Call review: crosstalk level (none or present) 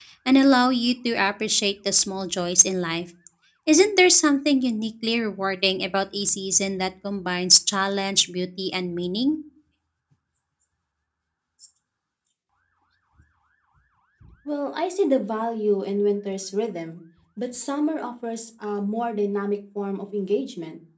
none